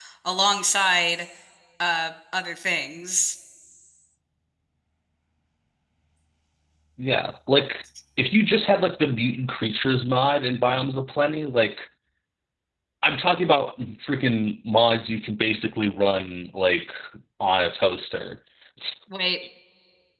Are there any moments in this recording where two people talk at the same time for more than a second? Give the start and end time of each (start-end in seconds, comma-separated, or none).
none